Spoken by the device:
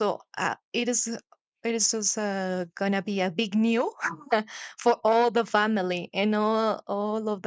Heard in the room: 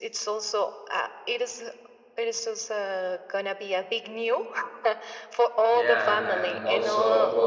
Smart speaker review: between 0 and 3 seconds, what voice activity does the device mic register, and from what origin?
echo only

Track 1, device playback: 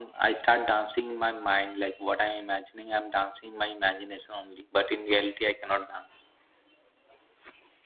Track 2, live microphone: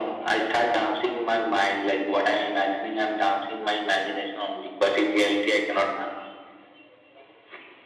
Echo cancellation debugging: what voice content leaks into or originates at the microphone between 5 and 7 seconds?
echo only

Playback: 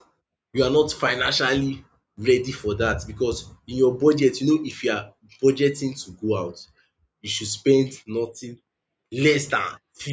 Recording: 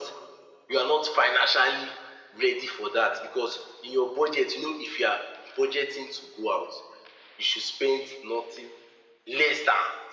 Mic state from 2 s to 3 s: echo only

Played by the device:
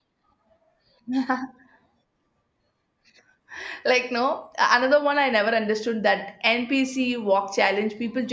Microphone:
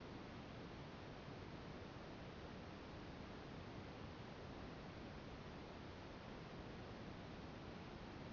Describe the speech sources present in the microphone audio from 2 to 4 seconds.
neither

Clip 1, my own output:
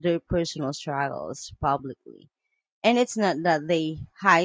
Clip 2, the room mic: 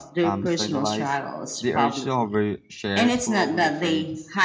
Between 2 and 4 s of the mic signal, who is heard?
both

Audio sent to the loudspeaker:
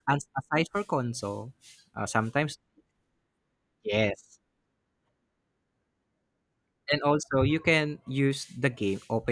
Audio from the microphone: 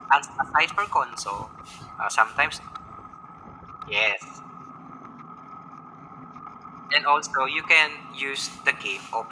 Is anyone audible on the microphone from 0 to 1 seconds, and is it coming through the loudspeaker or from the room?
echo only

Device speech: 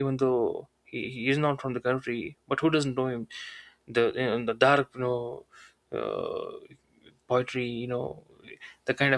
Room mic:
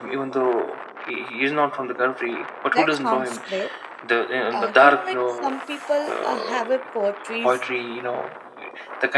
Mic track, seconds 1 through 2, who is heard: echo only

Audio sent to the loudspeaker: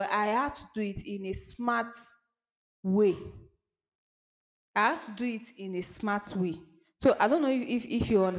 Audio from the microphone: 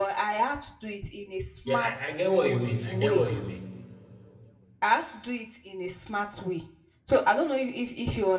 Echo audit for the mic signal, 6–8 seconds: echo only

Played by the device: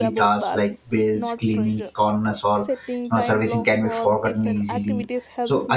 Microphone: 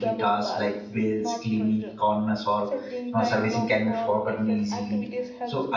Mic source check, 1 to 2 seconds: echo only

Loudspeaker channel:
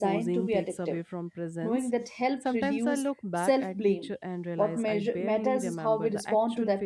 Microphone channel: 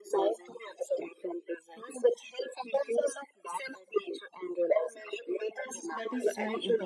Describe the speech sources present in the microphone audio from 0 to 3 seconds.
echo only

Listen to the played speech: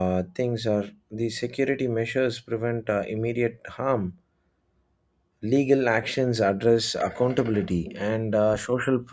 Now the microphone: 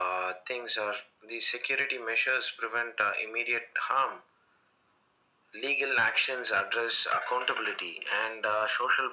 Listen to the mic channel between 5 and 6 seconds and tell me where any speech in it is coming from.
echo only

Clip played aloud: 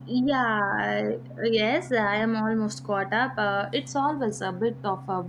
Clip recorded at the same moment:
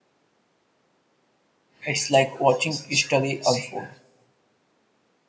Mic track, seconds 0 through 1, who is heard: neither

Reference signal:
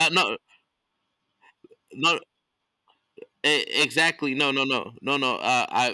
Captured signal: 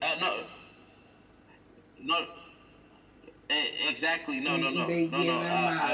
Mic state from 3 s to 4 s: echo only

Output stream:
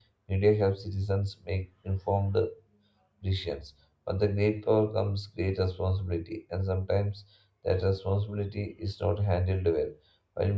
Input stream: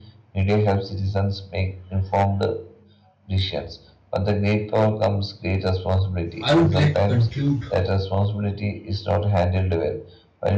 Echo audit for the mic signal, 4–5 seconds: echo only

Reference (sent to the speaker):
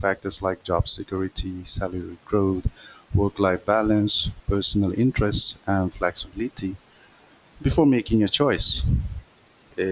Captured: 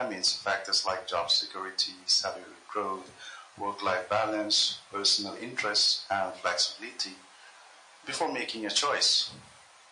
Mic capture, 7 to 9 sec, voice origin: echo only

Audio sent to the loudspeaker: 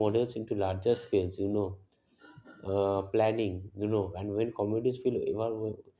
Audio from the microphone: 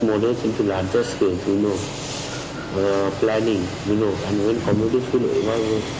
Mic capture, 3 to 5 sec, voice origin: echo only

